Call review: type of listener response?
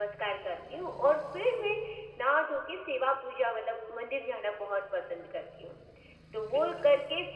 listening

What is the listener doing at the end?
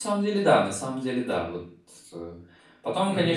listening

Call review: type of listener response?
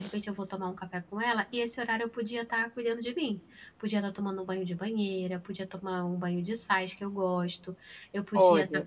listening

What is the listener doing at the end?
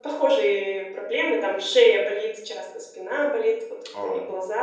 listening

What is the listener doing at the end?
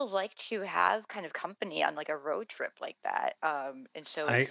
taking over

